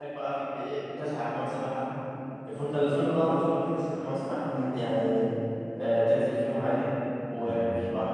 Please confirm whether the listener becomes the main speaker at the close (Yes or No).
No